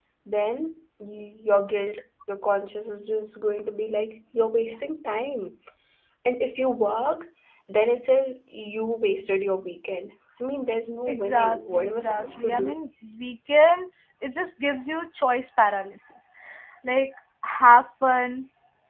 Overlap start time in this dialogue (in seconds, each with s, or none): 11.1 s